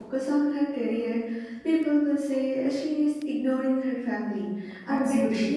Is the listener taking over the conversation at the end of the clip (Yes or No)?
No